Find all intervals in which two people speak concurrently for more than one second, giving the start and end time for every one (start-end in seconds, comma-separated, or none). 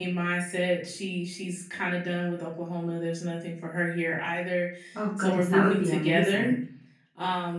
5.2-6.5